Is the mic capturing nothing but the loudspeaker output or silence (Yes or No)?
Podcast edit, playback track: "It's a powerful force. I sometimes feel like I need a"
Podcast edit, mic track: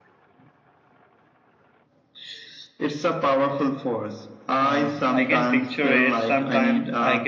No